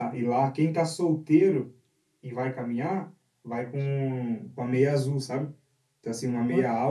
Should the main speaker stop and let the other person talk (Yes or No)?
No